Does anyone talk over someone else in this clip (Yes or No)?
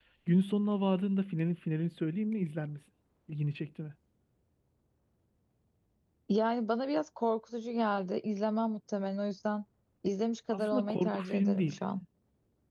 Yes